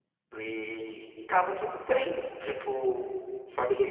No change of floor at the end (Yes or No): No